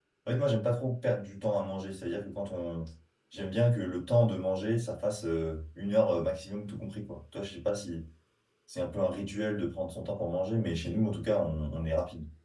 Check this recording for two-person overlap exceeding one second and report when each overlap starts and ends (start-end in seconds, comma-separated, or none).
none